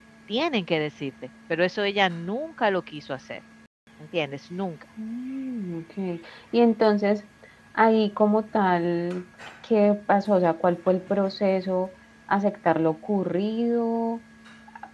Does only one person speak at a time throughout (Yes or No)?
Yes